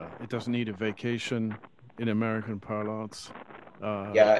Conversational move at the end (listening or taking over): taking over